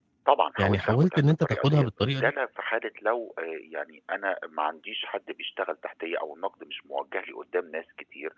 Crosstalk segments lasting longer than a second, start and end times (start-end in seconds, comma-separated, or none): 0.6-2.3